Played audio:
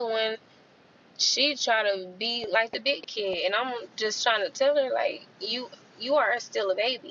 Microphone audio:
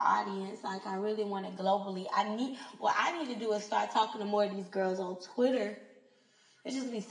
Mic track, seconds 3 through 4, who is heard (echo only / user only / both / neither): user only